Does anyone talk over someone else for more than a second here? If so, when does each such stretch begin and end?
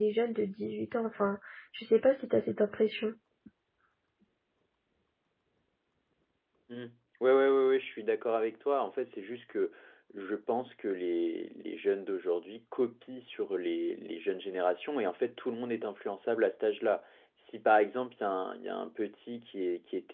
none

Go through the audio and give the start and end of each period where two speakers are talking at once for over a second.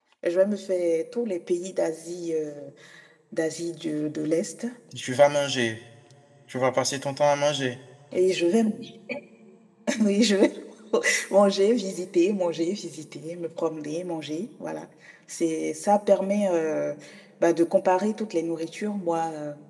none

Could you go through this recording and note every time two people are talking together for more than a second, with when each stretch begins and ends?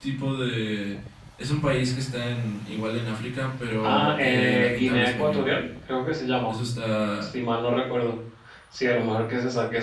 3.8-5.5

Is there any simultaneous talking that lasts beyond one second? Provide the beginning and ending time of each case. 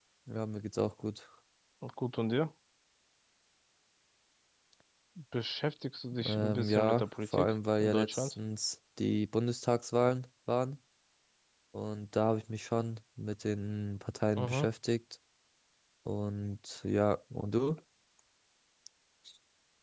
6.2-8.3

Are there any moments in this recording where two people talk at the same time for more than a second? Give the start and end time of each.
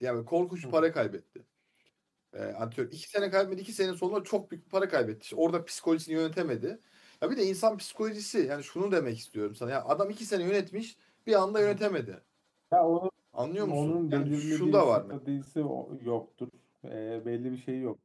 13.7-15.1

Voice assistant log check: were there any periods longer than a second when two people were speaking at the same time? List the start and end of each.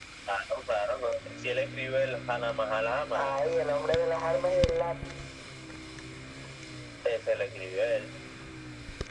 none

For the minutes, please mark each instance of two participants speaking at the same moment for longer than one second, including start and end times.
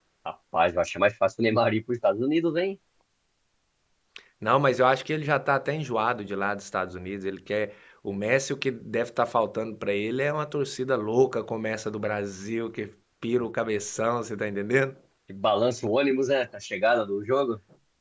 none

